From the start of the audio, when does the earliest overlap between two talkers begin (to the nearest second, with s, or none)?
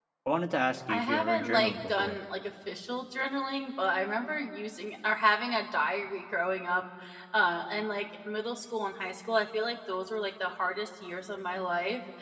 1 s